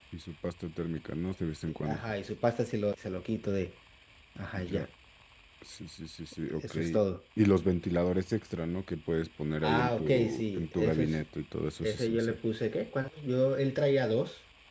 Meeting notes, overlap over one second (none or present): present